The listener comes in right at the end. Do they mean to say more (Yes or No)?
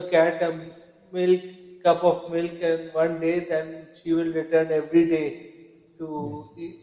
No